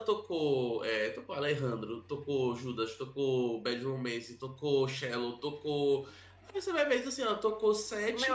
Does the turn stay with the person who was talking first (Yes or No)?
No